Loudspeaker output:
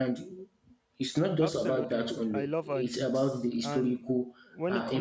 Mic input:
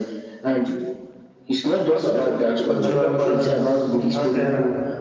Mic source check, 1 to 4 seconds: both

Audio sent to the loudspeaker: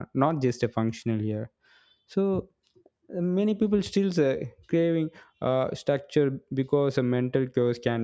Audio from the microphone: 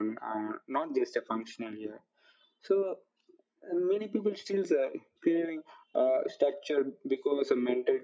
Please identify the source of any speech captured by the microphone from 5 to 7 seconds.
echo only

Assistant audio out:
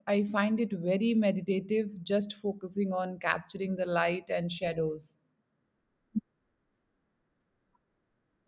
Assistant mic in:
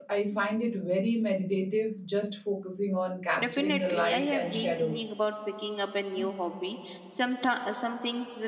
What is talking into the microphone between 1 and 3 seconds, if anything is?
echo only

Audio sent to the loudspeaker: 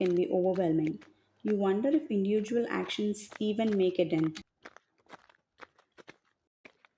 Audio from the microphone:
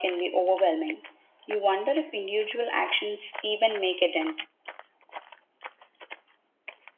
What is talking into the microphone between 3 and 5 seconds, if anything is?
echo only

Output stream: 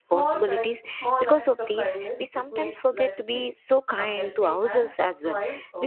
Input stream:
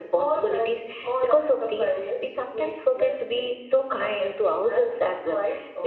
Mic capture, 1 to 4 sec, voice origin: echo only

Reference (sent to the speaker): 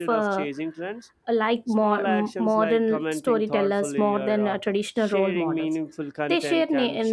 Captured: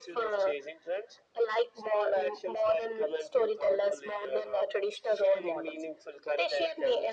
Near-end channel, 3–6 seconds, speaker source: echo only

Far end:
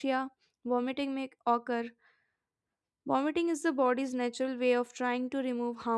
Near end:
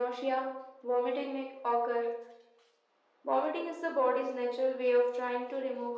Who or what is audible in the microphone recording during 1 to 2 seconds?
echo only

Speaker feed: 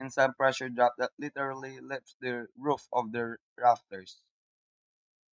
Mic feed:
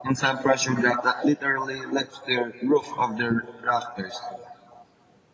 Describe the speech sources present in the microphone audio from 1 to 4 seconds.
echo only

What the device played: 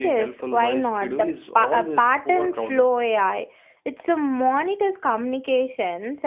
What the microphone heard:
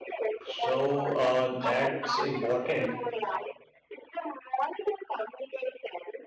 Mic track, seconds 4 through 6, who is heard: echo only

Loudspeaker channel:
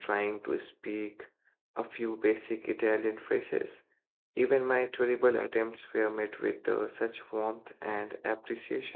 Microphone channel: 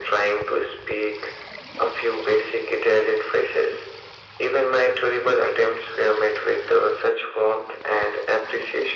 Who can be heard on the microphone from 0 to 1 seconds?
echo only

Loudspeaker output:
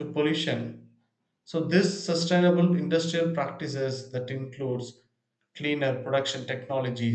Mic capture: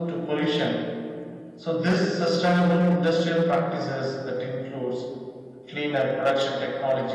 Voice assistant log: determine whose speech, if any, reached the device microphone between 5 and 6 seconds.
echo only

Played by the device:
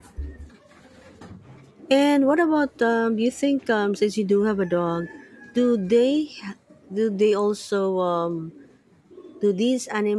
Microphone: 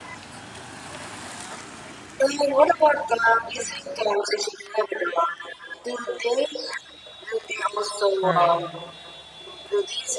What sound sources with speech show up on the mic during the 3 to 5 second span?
echo only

